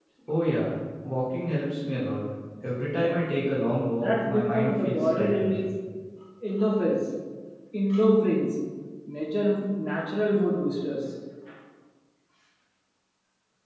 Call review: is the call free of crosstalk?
No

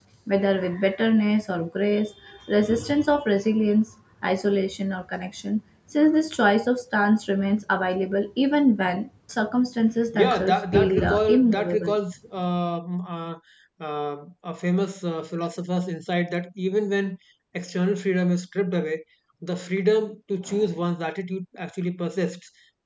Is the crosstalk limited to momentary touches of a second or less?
No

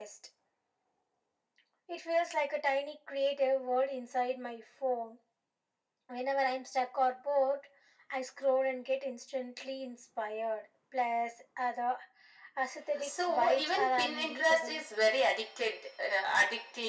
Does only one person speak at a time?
No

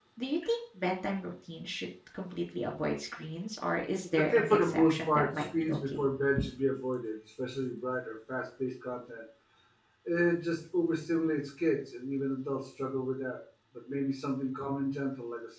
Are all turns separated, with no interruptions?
No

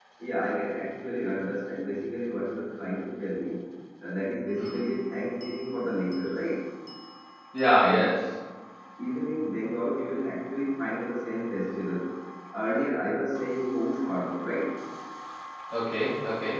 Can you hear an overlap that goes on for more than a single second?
No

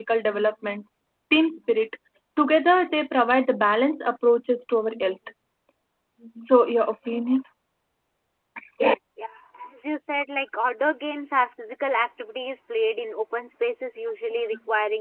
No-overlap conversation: Yes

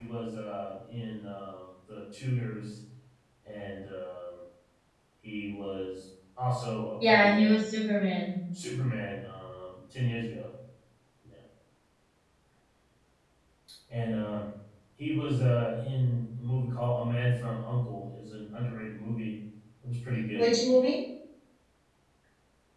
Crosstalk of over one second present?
No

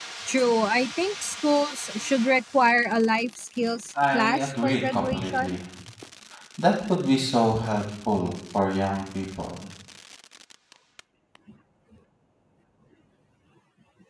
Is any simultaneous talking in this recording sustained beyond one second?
Yes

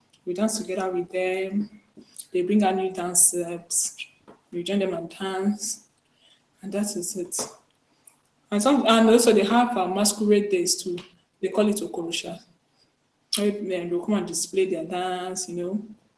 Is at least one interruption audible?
No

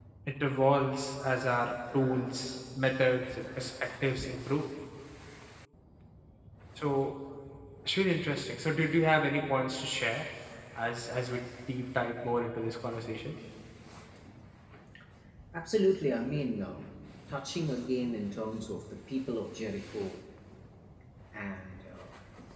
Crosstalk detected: No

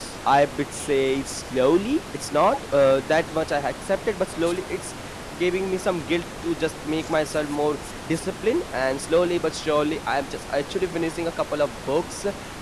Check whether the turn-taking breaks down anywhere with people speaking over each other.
No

